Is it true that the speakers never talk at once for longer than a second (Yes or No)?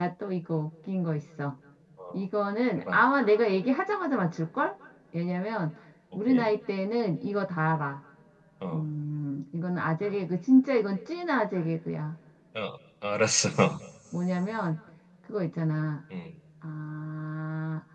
Yes